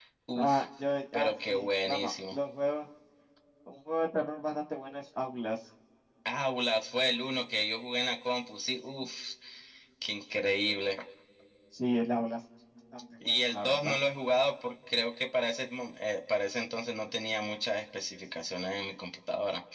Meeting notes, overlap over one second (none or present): present